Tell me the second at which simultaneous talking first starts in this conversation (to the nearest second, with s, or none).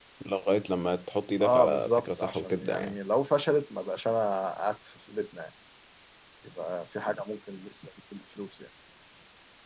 1 s